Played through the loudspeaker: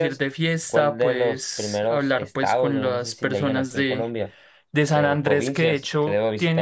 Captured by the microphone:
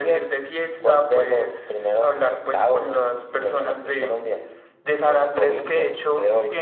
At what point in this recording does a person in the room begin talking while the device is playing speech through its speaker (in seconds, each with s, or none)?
none